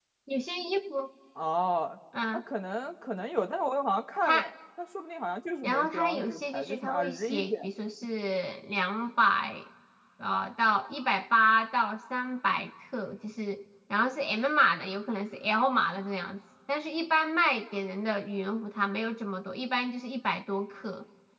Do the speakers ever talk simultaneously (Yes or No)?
Yes